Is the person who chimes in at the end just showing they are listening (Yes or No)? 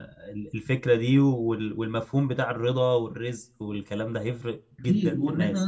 No